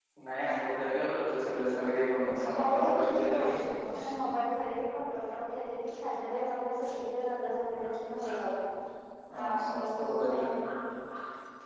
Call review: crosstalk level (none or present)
present